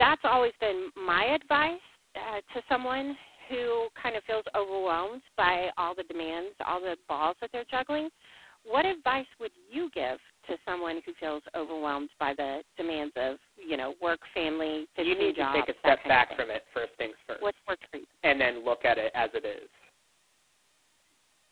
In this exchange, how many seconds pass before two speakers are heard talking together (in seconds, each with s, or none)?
15.0 s